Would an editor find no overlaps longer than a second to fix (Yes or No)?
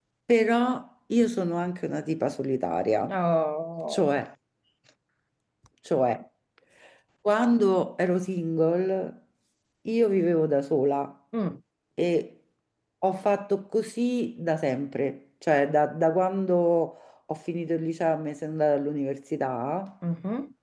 Yes